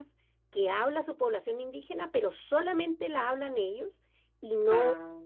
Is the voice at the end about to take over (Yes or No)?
No